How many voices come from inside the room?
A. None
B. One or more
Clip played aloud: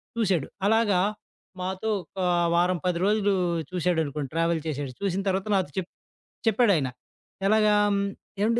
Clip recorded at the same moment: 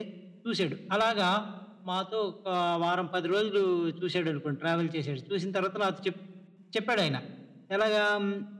A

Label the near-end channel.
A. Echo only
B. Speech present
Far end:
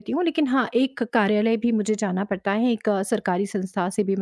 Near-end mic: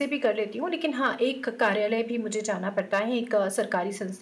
A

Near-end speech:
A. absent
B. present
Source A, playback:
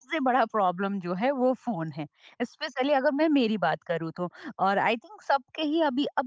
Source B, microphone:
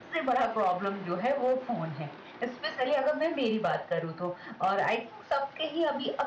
A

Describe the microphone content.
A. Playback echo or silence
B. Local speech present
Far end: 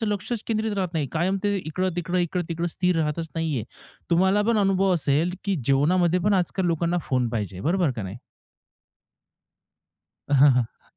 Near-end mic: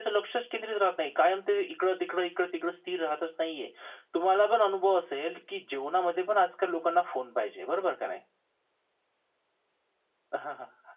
A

